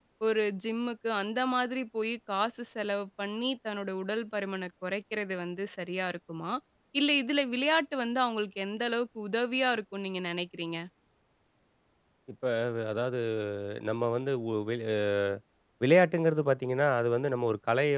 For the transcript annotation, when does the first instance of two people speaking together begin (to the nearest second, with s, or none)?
none